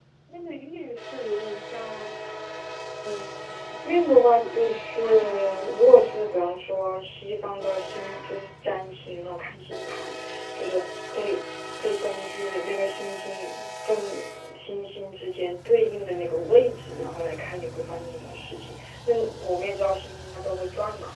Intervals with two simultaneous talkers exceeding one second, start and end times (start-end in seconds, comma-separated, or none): 4.3-6.2